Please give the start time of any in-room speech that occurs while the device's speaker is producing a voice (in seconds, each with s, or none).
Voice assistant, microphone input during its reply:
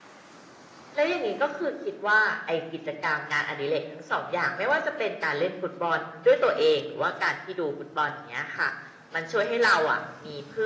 none